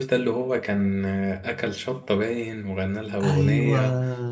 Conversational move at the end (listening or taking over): listening